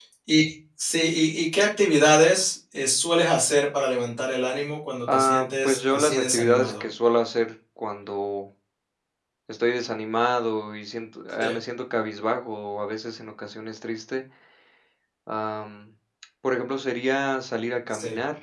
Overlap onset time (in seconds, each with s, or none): 5.1 s